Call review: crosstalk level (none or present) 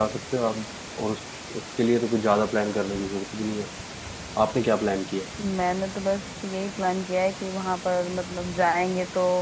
none